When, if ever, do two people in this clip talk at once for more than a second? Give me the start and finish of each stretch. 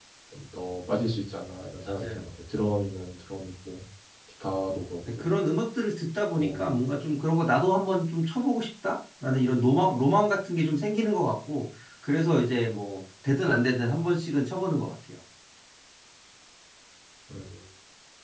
none

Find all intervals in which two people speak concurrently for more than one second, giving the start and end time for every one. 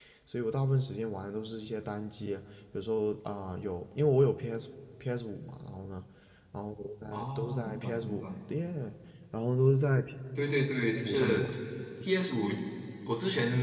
7.1-8.3

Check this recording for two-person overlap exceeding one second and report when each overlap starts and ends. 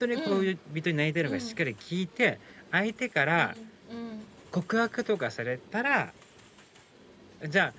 none

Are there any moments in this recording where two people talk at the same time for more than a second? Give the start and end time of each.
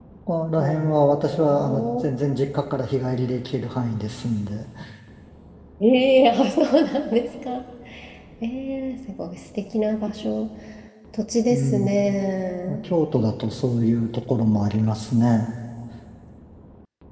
0.6-1.9

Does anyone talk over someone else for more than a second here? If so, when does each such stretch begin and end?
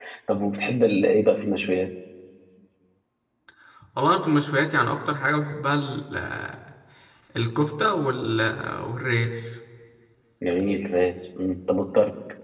none

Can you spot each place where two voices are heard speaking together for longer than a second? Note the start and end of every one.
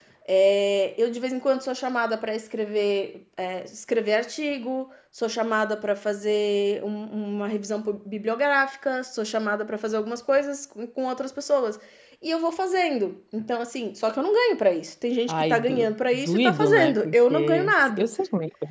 15.3-18.1

